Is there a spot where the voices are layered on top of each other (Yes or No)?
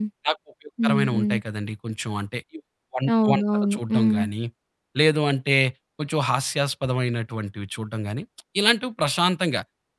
Yes